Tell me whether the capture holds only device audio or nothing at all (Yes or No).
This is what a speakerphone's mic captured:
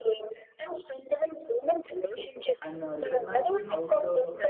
No